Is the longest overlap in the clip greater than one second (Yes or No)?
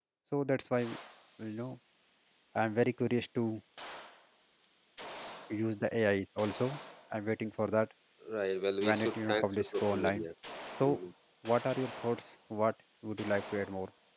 Yes